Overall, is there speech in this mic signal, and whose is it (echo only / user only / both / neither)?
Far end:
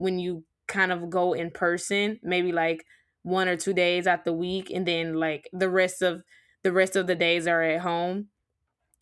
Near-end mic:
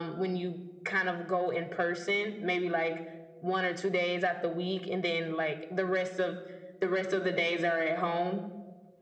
echo only